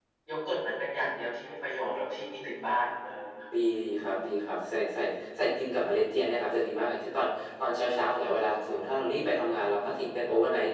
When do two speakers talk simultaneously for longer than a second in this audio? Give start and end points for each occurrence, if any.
none

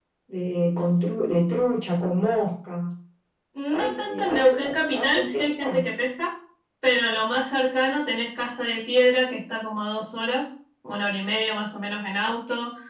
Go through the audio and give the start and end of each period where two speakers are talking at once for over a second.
3.7-5.8

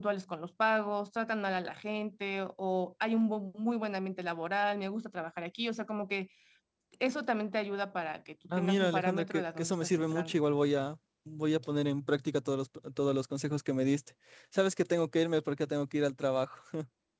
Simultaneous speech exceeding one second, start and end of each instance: 8.6-10.4

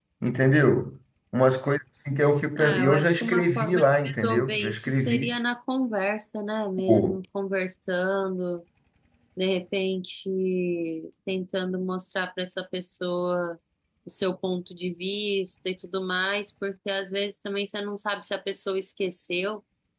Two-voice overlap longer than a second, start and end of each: 2.6-5.3

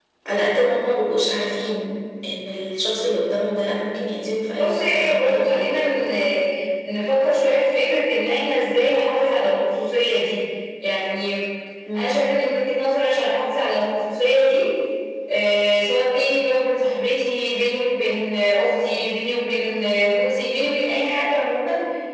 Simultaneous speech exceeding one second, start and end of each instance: 4.6-5.9

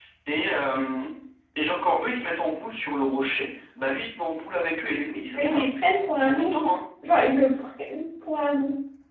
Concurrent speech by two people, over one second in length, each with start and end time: none

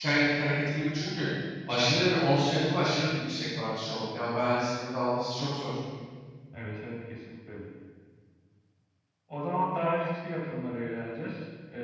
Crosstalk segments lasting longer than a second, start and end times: none

